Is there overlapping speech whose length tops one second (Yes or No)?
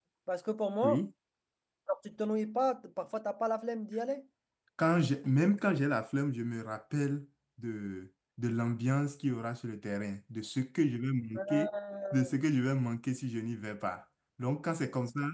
No